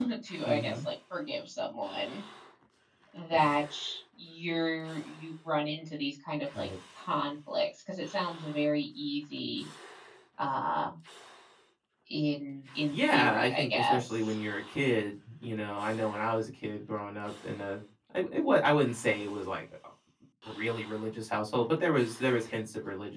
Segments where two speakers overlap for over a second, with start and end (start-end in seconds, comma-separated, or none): 12.9-14.2